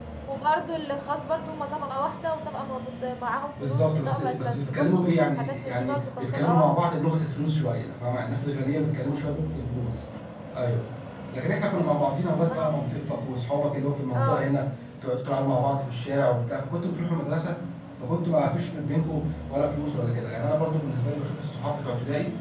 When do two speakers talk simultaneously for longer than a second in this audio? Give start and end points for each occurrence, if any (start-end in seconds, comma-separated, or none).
3.6-6.7